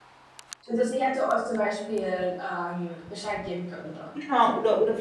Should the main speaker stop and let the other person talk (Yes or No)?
Yes